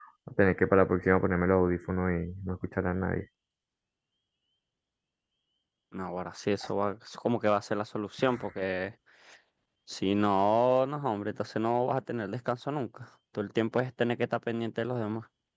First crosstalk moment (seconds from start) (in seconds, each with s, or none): none